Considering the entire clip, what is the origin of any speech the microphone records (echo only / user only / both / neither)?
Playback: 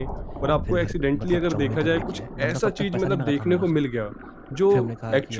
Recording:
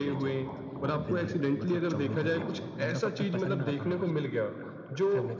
echo only